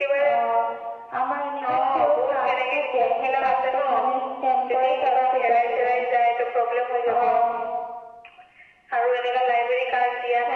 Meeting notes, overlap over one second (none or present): present